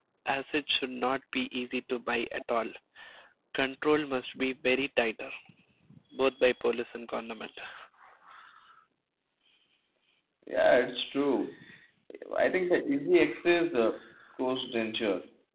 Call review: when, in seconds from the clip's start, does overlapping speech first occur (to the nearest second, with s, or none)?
none